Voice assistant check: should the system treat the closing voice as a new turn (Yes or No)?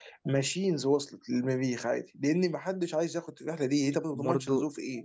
Yes